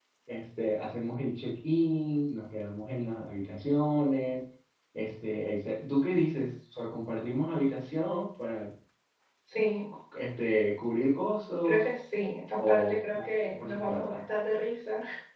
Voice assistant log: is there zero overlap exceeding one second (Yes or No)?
No